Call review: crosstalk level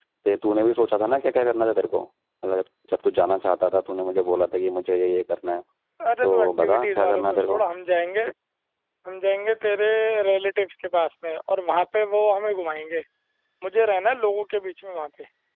present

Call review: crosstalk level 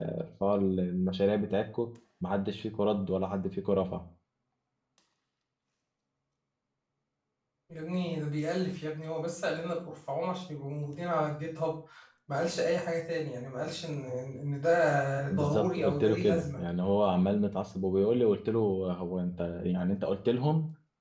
present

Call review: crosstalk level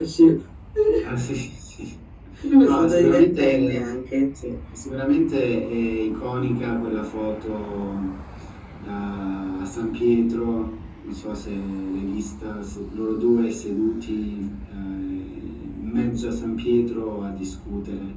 present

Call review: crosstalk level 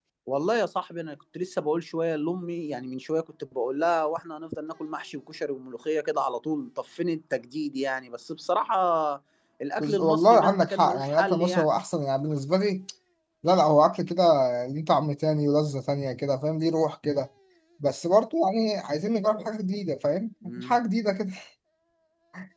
present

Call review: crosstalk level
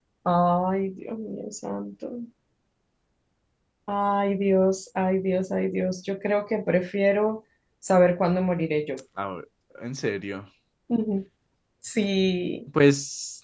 none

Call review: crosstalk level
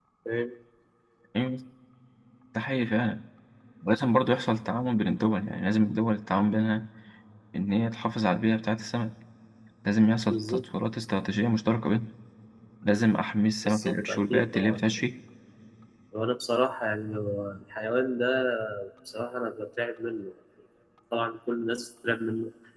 present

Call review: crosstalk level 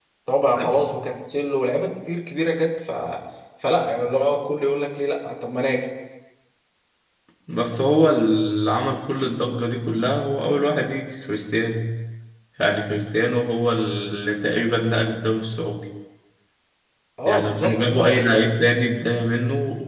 present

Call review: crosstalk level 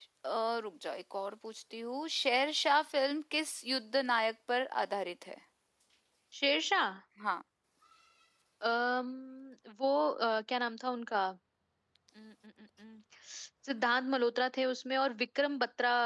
none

